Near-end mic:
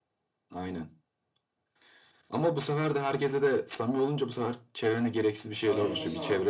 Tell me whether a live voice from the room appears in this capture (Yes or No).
Yes